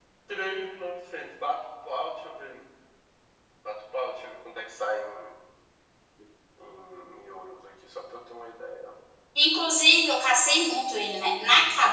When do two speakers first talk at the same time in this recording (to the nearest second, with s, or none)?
none